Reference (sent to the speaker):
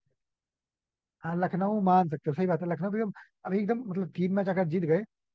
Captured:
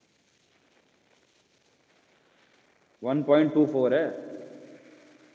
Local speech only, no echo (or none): वन पॉइंट टू फोर है